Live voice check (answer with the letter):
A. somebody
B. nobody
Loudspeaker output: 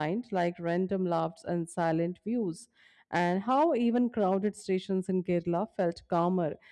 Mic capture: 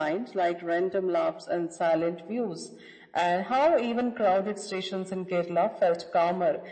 B